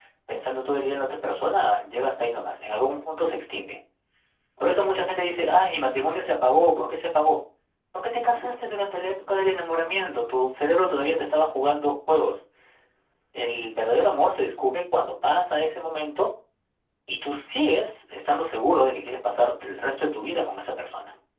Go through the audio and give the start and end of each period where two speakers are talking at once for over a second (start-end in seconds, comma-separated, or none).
none